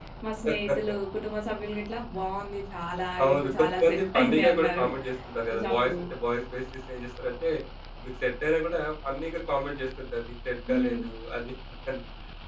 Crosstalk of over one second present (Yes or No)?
Yes